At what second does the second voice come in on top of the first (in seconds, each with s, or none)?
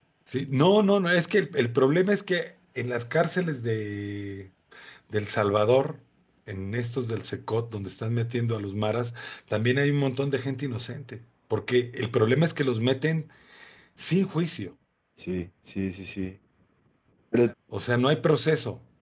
none